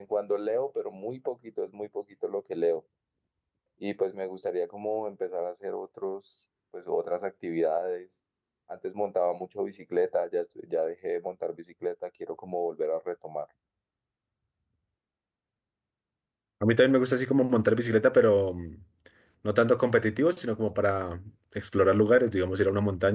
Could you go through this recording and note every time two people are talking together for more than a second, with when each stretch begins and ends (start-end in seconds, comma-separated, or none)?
none